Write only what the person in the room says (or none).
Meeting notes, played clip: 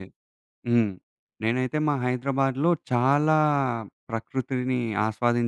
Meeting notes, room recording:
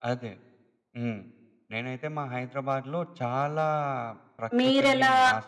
మీరెలా